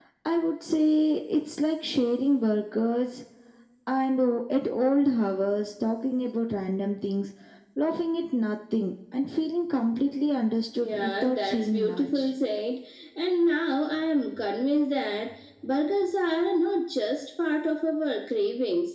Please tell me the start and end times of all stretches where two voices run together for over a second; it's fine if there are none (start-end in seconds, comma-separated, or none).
10.8-12.3